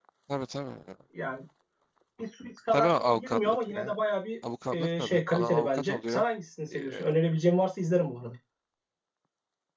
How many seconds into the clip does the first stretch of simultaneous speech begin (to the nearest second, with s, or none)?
3 s